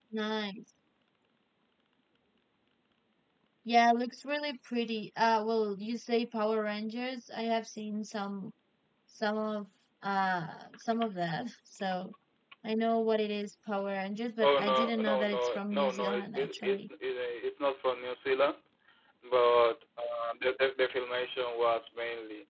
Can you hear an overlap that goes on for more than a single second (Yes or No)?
Yes